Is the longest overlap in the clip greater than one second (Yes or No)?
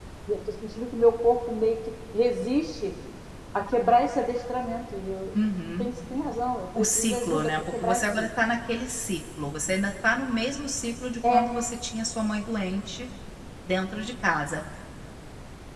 Yes